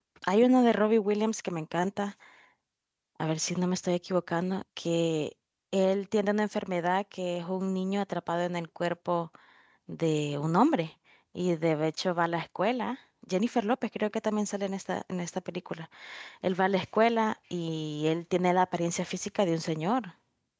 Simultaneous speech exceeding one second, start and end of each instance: none

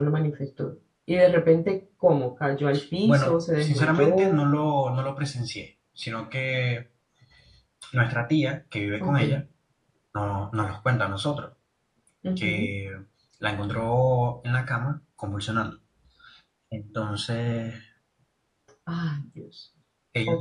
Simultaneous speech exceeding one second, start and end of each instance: 3.0-4.4

